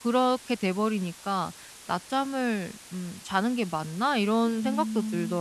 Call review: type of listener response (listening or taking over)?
taking over